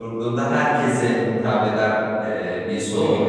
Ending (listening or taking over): listening